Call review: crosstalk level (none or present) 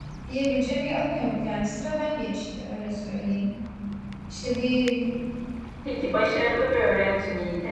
none